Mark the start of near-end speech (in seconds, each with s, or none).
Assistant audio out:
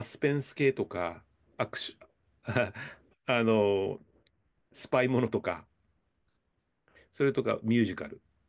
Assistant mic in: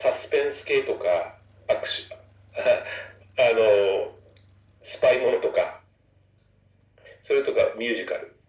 none